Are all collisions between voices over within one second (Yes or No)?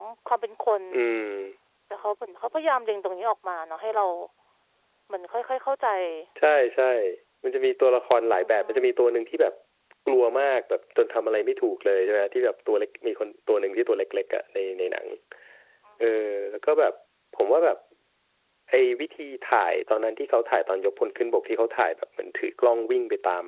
Yes